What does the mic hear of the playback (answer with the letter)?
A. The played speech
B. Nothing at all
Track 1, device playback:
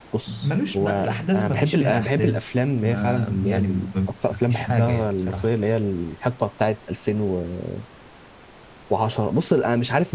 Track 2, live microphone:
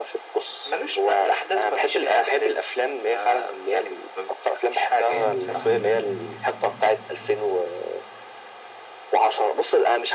A